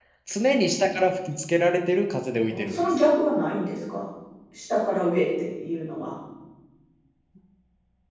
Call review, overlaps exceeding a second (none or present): none